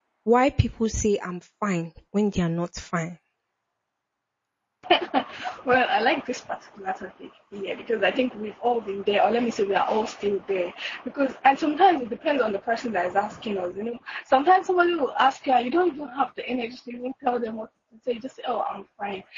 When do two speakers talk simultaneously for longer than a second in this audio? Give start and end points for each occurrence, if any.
none

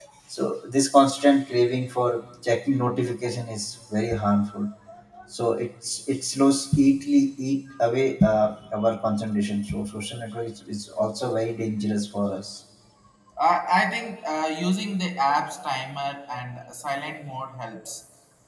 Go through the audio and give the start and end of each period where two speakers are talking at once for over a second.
none

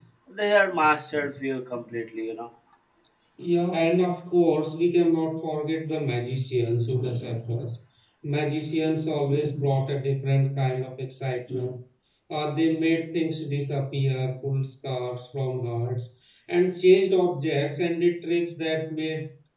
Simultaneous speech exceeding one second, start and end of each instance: none

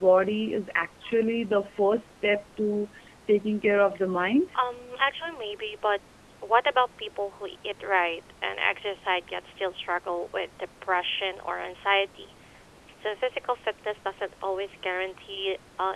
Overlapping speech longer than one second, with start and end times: none

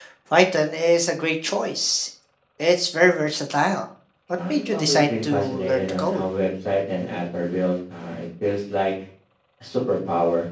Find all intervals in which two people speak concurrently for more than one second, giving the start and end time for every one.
4.5-6.2

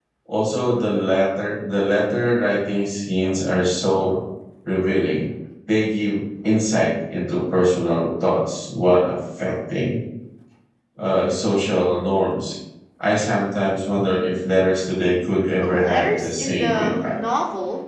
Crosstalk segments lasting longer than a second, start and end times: 15.6-17.2

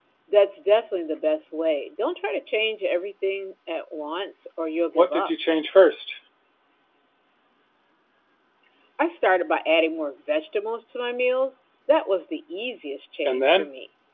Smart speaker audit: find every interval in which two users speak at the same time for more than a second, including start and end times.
none

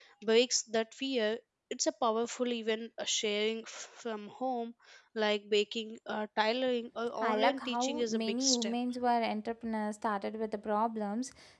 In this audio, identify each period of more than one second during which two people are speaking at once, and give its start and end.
7.2-8.7

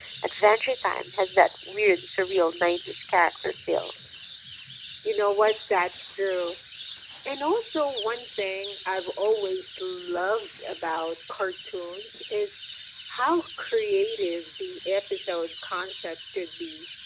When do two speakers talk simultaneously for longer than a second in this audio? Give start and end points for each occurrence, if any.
none

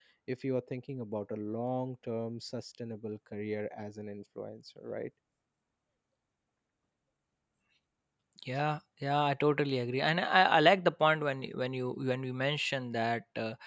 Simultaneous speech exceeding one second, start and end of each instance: none

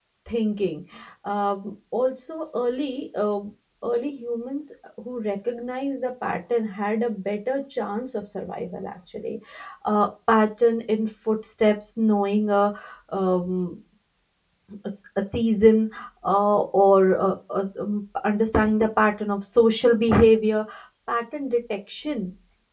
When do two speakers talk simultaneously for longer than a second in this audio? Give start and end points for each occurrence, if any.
none

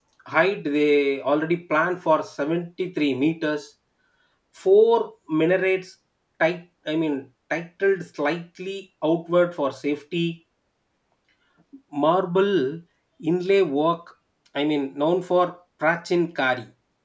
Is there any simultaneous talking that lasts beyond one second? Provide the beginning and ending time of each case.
none

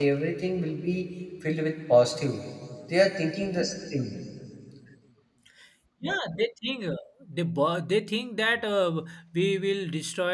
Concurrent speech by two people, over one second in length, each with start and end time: none

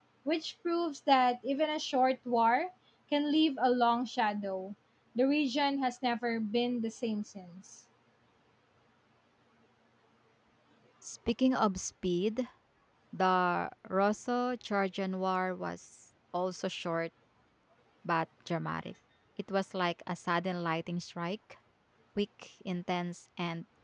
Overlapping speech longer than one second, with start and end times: none

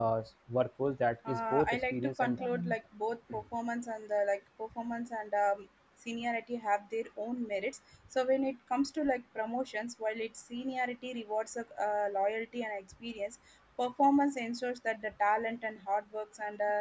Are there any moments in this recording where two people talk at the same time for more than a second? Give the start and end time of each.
1.3-2.8

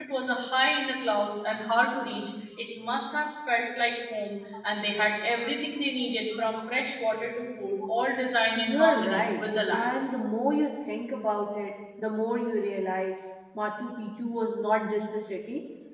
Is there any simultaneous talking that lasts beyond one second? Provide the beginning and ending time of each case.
8.6-9.9

